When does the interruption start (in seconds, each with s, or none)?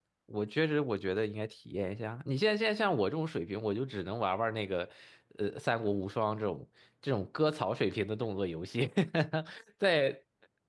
none